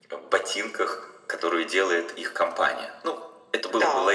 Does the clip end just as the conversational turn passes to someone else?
Yes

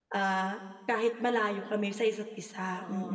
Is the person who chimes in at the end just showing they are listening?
No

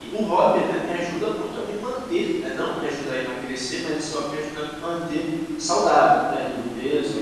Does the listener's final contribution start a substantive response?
Yes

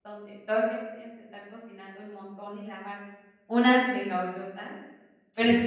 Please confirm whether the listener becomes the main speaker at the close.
No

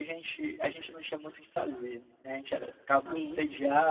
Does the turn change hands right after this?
No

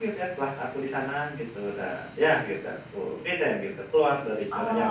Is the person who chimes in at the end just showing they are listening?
No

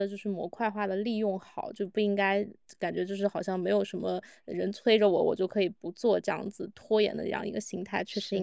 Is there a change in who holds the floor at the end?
Yes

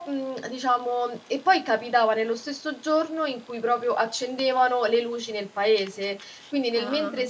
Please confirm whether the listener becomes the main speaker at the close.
No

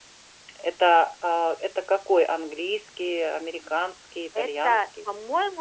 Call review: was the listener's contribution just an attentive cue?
No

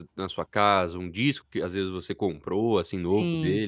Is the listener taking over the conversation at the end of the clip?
Yes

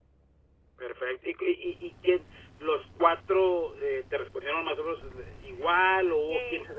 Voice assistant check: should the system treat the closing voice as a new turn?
Yes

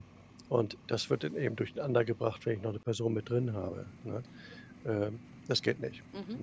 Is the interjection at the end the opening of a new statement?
Yes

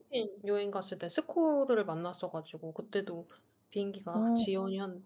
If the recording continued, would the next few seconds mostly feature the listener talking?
No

